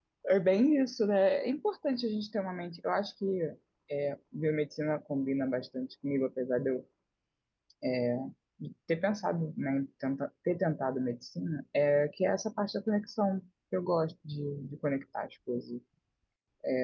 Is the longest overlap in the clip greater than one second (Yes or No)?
No